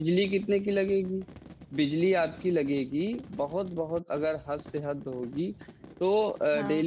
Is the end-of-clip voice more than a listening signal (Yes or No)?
No